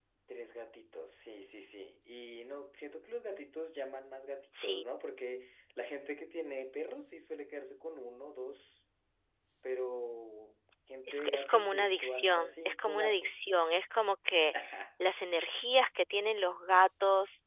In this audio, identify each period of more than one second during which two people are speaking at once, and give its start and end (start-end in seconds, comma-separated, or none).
11.1-13.7